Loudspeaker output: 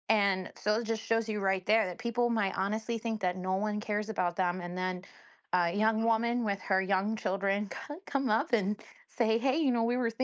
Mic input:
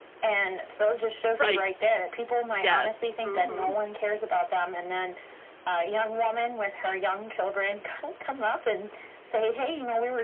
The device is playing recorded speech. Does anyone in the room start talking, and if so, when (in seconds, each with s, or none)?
1.4 s